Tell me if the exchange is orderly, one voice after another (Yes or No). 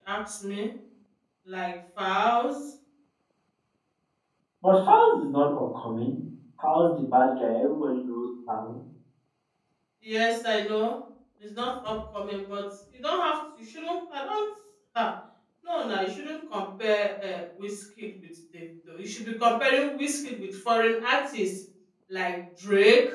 Yes